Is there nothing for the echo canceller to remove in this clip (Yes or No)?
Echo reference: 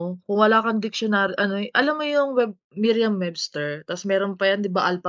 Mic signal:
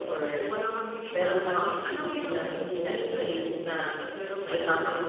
No